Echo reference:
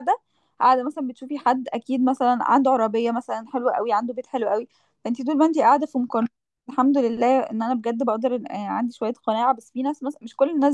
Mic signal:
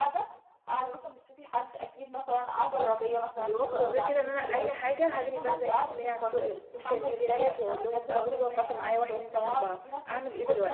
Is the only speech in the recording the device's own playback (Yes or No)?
No